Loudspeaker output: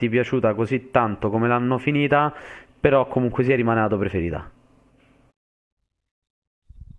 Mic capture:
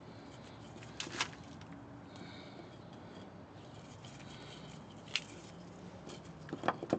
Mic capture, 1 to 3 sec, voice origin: neither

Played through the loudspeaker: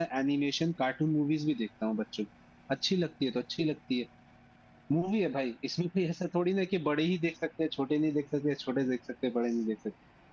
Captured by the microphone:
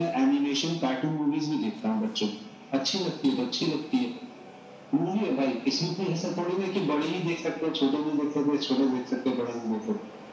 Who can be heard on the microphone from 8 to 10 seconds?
echo only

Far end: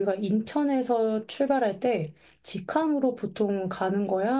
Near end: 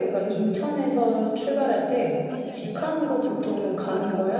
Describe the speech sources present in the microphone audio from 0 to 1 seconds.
echo only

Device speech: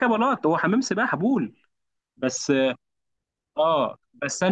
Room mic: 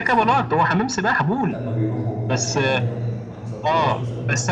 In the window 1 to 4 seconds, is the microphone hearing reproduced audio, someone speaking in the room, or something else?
both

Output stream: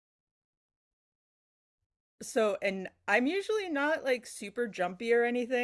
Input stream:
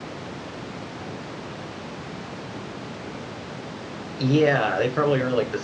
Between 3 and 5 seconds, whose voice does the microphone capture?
user only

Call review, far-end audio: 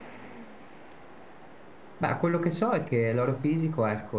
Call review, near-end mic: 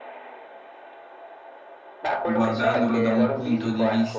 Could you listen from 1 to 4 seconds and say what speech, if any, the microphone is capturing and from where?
both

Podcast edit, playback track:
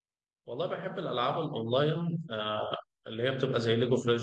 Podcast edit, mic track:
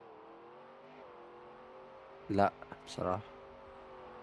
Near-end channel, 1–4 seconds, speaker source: user only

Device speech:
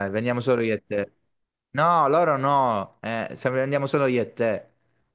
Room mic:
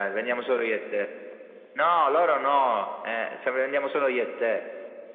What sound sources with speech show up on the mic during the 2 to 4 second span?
echo only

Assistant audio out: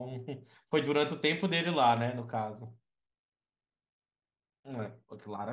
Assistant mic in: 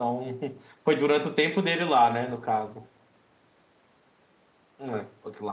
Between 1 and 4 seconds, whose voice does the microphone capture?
echo only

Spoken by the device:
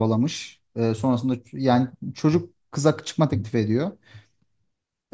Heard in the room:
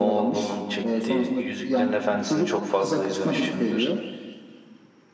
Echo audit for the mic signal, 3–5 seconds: both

